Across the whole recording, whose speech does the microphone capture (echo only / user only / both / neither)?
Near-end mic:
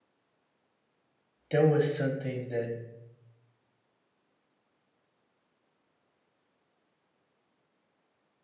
user only